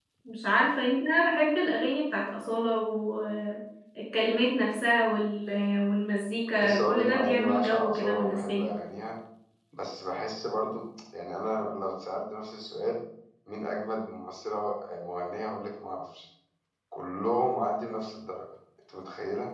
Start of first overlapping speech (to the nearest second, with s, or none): 7 s